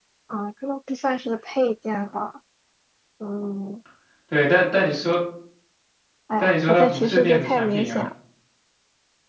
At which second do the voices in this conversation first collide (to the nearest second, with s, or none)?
6 s